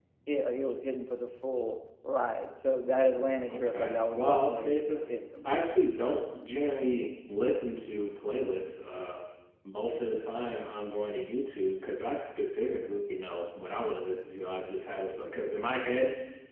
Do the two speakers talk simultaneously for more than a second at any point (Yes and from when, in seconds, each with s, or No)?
Yes, from 3.5 s